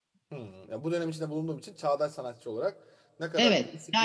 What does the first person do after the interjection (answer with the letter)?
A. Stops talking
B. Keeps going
A